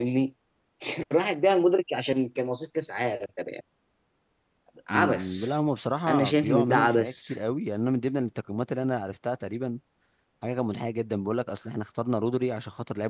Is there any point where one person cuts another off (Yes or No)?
Yes